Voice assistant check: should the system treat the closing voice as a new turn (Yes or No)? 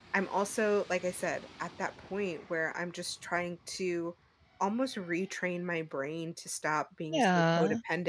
No